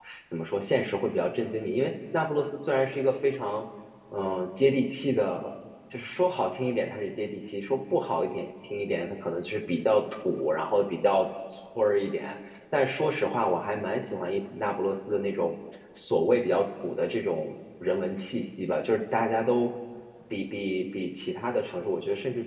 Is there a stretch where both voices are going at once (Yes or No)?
No